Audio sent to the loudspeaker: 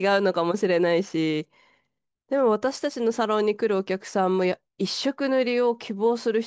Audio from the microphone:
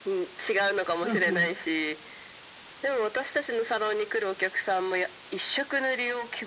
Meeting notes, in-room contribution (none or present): present